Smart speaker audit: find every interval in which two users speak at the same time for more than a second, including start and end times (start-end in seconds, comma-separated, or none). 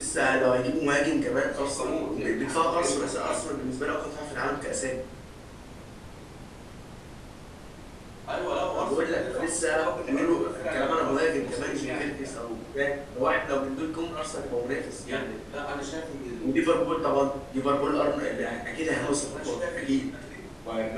1.5-3.5, 8.7-12.3, 18.8-20.1